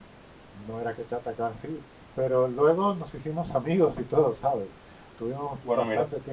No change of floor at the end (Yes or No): Yes